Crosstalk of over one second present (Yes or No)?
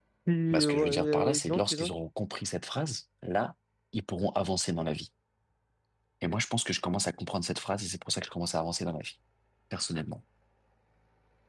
Yes